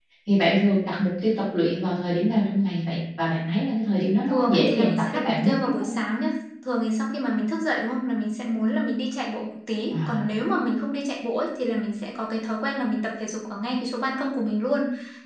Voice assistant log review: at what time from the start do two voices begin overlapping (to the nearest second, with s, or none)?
4 s